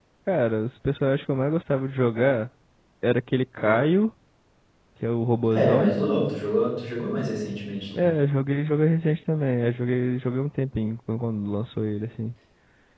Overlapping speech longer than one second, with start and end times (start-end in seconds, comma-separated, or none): none